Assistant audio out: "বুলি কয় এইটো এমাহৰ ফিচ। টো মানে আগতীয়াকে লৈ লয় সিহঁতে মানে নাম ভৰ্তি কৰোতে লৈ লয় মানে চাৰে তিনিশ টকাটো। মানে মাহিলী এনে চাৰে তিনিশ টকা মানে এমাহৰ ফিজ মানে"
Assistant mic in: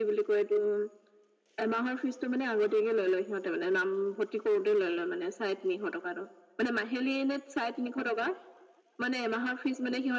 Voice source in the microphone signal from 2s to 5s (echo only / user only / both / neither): echo only